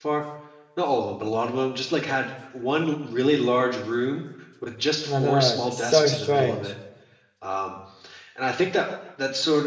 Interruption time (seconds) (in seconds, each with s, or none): 5.1 s